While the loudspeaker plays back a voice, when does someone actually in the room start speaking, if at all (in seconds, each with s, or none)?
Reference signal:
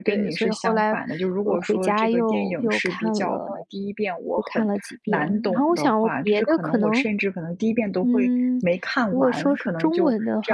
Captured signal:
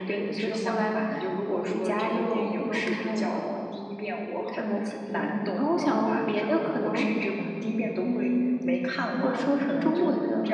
9.2 s